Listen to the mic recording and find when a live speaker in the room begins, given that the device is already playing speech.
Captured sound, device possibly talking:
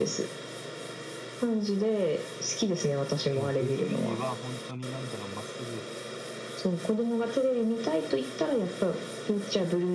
3.3 s

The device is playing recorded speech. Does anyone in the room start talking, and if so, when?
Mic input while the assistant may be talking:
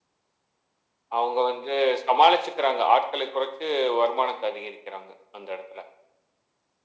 none

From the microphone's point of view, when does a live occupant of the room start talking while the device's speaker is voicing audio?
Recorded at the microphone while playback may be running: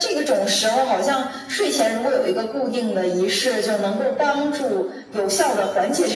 none

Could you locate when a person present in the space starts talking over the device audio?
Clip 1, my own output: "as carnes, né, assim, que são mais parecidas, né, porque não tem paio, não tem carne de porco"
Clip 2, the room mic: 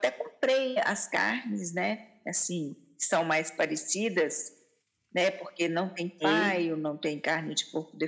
6.2 s

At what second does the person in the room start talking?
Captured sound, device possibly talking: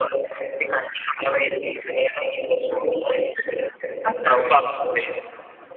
4.0 s

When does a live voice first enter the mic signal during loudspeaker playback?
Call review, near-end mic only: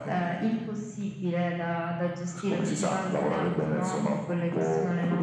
none

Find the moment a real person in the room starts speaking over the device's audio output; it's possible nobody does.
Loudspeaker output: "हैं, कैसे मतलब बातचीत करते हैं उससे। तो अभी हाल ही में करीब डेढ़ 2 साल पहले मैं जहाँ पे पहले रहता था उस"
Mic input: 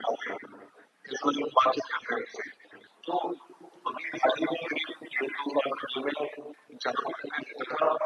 none

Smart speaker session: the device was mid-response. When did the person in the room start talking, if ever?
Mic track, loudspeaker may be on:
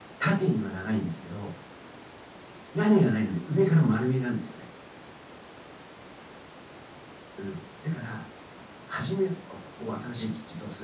none

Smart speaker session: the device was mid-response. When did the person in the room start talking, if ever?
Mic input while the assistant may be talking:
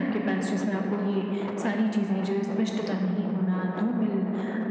none

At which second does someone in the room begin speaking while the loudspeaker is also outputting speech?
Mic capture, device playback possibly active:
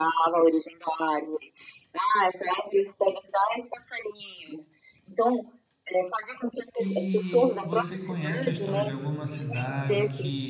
6.8 s

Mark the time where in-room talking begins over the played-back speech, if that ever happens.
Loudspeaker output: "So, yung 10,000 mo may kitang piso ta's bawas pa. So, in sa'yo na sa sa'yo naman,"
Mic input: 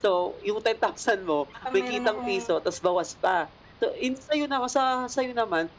1.6 s

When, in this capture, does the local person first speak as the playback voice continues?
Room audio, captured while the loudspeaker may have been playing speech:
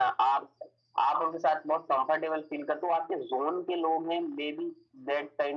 none

